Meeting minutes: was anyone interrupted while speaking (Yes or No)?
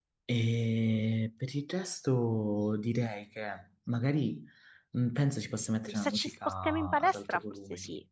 Yes